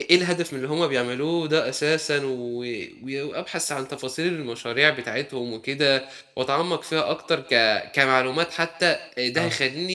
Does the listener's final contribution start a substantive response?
No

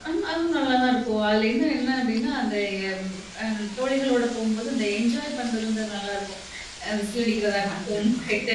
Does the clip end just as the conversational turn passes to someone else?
No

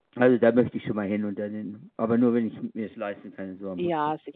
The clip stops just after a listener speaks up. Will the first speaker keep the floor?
No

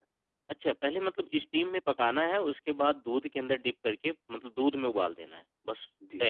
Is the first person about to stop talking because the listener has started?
Yes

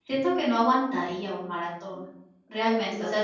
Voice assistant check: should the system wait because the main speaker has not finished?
Yes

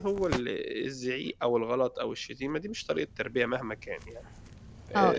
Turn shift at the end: Yes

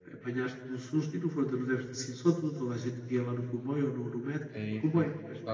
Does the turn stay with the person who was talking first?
No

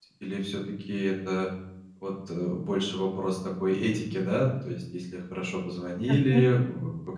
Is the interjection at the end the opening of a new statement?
No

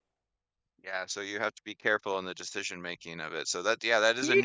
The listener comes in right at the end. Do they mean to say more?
No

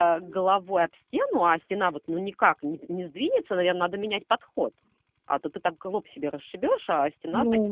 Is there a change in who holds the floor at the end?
Yes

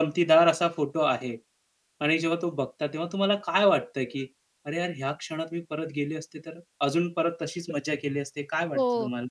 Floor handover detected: Yes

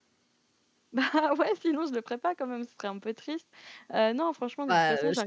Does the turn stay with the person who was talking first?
No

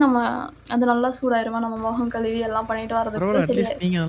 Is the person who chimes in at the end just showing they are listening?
No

